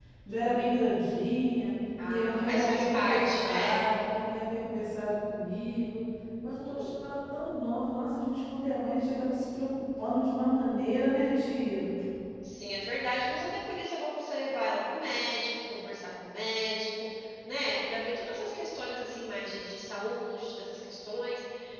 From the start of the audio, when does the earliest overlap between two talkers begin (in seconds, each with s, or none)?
2.1 s